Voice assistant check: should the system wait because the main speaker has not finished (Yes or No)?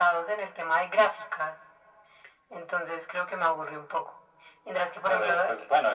No